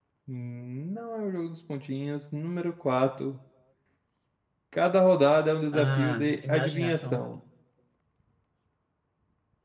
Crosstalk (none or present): present